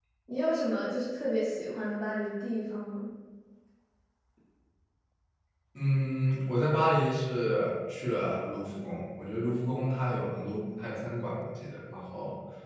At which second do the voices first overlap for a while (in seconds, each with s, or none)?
none